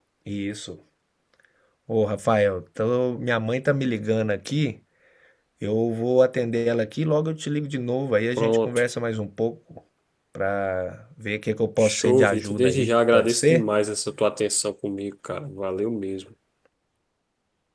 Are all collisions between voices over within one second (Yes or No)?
No